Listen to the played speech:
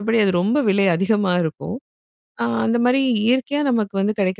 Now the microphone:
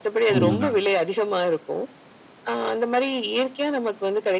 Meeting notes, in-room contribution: present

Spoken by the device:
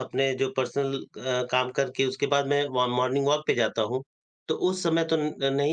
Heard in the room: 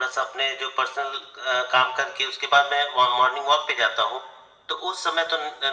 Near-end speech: none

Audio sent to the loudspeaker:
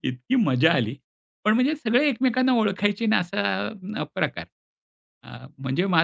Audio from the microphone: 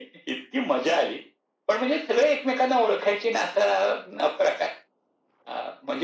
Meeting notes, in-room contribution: none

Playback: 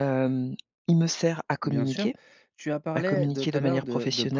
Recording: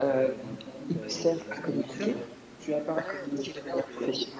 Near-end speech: present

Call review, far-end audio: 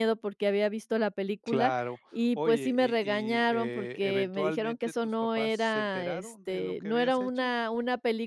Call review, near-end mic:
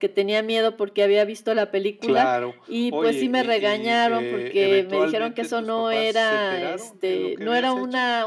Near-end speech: none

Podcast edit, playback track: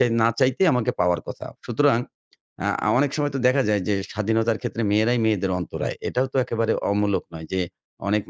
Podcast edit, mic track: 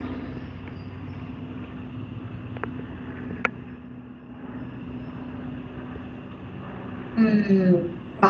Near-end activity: present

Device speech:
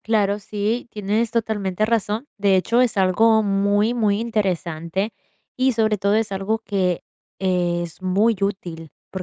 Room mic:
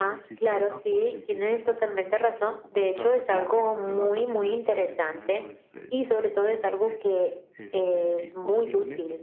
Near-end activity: present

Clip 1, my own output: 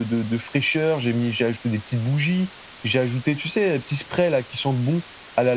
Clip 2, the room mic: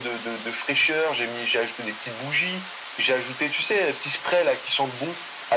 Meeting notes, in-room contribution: none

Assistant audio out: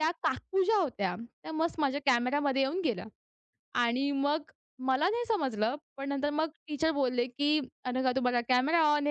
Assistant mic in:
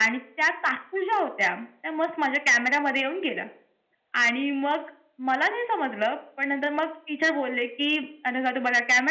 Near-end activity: none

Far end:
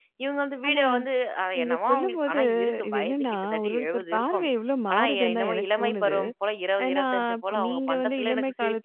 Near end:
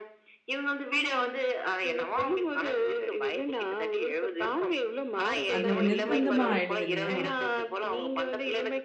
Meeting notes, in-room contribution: present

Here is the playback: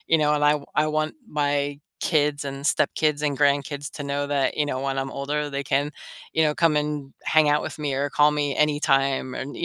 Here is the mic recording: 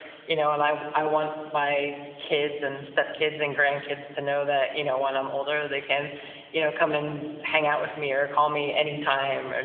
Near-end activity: none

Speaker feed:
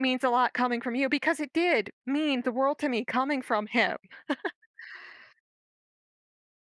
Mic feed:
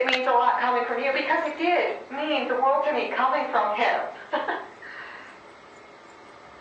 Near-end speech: none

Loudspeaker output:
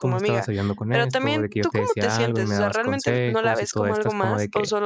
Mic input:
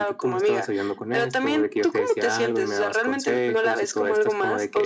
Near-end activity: none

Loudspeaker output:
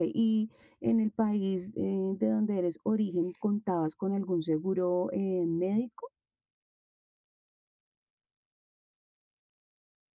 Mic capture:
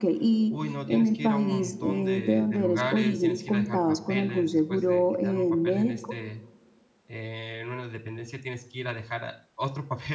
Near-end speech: present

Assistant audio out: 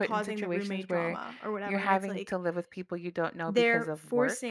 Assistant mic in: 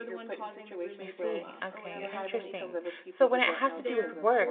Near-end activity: present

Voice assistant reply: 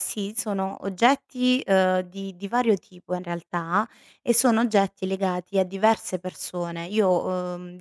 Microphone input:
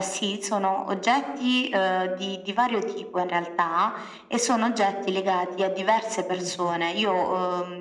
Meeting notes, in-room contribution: present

